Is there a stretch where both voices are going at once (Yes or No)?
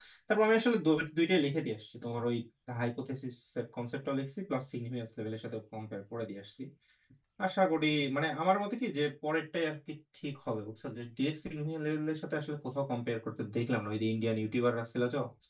No